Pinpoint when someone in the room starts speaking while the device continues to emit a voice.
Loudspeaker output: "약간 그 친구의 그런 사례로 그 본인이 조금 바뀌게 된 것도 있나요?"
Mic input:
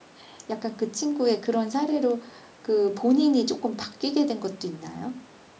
none

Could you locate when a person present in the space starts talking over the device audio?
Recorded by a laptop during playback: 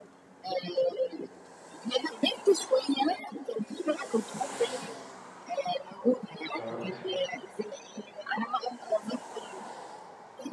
6.5 s

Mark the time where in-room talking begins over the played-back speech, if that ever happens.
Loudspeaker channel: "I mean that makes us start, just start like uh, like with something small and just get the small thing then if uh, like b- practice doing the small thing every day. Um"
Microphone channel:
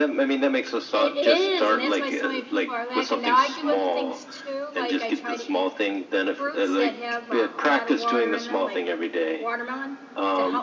0.9 s

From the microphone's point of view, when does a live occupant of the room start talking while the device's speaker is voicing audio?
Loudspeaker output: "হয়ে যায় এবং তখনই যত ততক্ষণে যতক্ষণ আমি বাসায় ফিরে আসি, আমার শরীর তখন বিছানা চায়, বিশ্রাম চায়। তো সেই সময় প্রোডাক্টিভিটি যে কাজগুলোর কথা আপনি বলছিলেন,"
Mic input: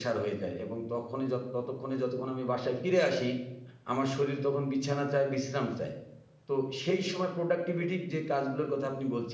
none

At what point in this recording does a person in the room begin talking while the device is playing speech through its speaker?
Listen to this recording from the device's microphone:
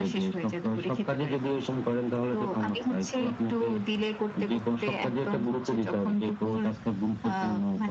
none

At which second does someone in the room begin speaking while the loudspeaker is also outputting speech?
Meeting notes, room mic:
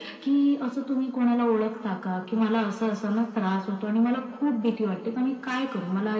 none

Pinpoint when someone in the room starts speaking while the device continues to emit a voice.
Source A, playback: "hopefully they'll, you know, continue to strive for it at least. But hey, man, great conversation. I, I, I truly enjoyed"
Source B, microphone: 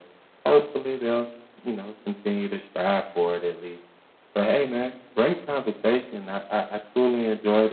none

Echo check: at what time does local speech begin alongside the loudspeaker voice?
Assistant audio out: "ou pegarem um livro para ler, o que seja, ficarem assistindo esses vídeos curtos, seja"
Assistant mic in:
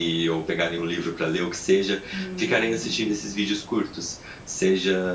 2.1 s

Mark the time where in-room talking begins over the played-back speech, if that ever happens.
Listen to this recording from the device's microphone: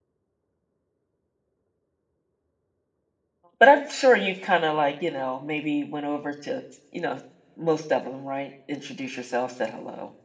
3.6 s

